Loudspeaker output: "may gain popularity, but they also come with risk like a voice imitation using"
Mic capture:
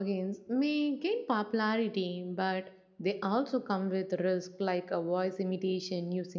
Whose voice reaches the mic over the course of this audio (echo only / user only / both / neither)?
echo only